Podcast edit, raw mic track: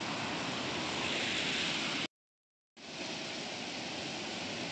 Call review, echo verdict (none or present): none